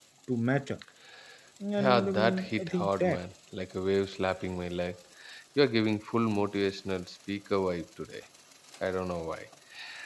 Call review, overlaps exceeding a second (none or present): present